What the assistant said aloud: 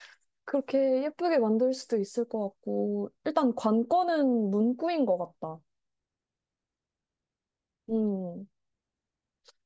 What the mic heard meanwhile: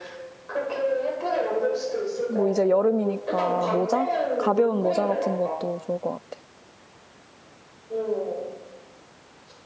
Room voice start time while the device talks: 2 s

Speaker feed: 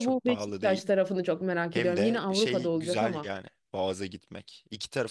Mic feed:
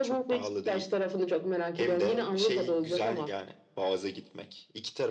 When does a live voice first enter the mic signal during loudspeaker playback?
none

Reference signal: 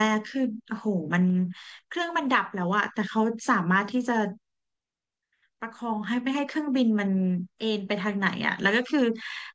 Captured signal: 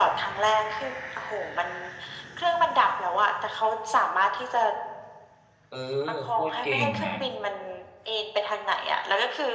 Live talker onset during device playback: 6 s

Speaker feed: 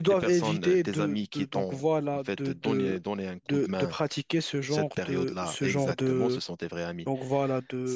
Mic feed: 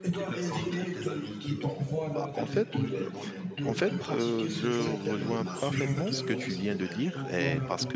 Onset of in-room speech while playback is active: 2 s

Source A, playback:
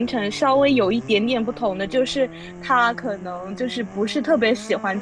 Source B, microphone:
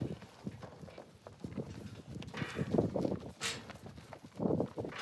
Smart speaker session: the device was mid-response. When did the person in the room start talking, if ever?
none

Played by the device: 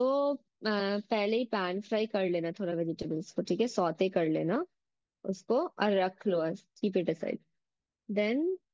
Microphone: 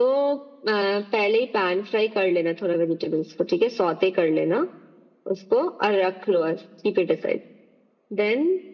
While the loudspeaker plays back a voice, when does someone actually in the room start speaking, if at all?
none

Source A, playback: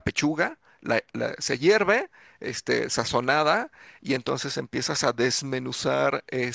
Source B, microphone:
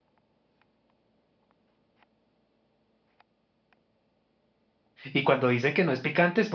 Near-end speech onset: 5 s

